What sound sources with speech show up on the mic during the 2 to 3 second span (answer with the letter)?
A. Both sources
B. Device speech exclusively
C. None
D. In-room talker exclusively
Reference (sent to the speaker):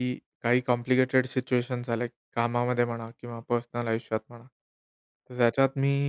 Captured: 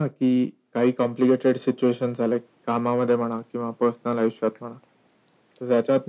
B